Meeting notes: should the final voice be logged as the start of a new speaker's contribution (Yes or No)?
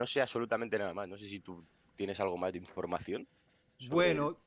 Yes